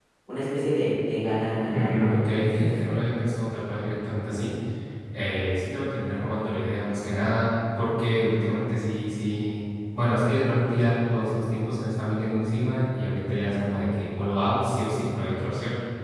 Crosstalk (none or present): present